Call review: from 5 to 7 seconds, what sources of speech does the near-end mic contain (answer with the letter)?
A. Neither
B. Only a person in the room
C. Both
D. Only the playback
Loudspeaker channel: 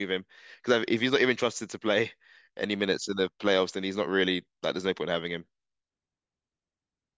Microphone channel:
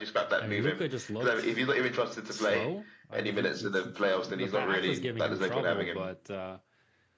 C